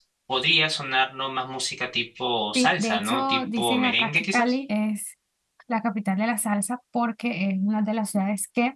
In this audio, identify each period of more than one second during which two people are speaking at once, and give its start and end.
2.5-4.5

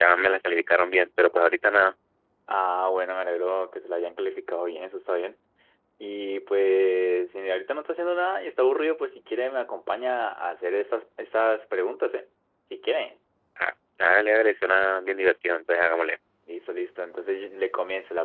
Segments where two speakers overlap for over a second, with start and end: none

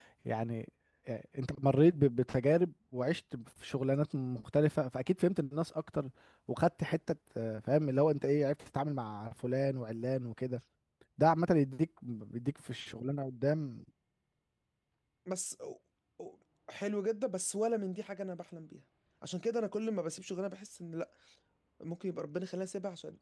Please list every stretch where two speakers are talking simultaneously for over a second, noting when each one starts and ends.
none

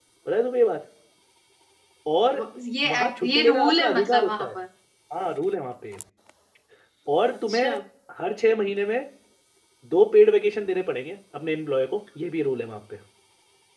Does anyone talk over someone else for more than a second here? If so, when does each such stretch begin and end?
2.9-4.5

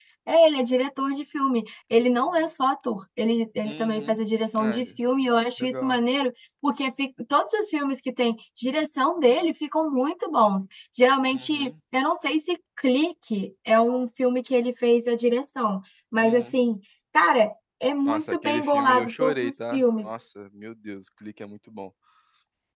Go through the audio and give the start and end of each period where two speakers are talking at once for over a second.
18.1-20.1

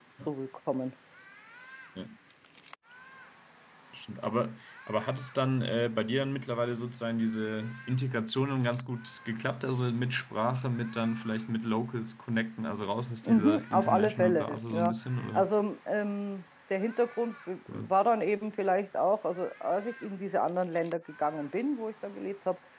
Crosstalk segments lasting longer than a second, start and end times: 13.2-14.9

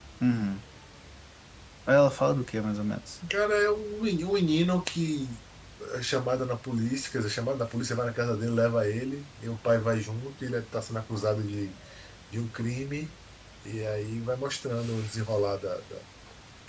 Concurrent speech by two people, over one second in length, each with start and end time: none

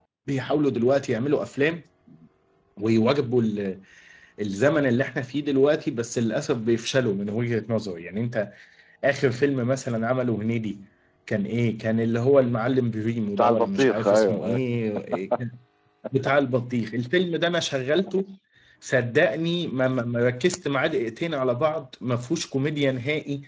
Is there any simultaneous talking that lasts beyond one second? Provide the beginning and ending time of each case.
13.4-14.6

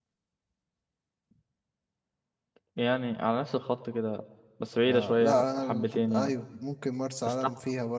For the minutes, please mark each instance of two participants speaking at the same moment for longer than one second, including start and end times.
4.8-6.3

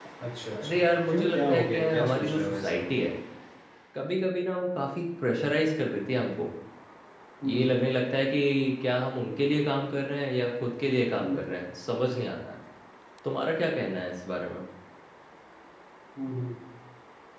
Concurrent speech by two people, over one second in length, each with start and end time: 0.5-2.8

